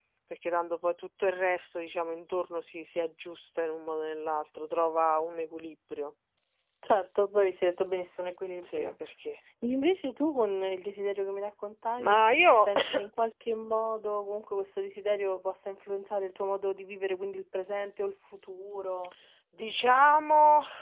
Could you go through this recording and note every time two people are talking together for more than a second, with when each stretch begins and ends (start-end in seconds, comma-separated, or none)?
none